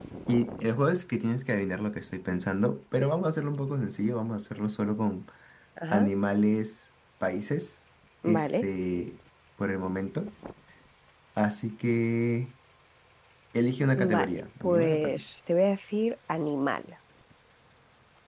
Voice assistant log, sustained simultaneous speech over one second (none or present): present